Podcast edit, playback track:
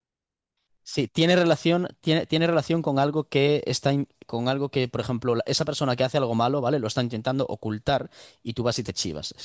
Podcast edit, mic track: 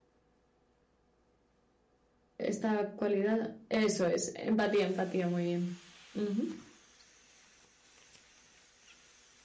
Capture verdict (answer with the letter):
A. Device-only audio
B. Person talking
B